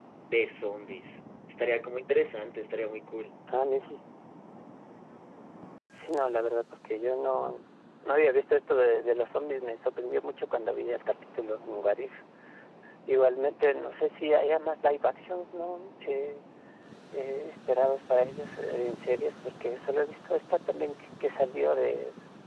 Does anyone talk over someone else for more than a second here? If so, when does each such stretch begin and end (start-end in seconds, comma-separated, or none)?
none